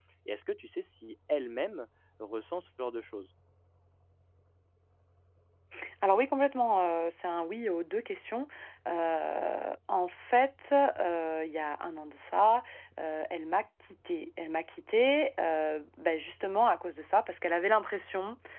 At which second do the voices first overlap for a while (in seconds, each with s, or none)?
none